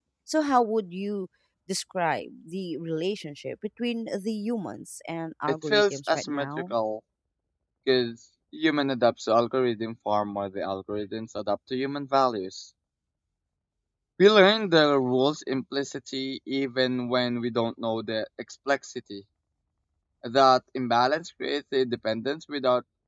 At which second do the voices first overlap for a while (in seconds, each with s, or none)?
5.5 s